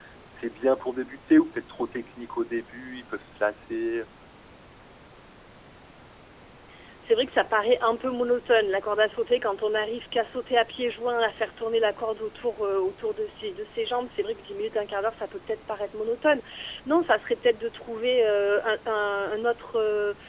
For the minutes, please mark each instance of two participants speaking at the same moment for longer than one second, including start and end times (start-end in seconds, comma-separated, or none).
none